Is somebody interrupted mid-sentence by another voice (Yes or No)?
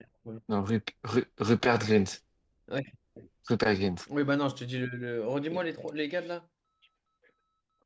No